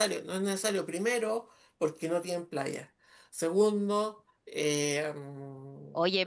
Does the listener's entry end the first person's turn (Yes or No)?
Yes